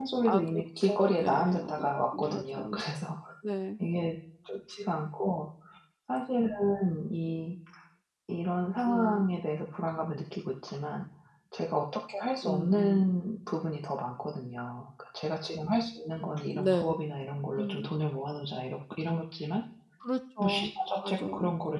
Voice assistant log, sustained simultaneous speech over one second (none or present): present